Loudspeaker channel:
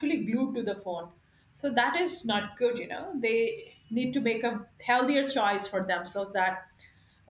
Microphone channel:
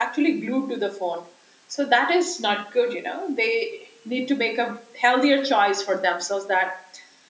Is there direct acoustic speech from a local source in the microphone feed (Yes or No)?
No